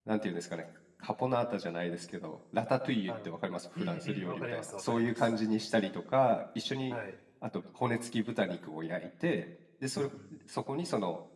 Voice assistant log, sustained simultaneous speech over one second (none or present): present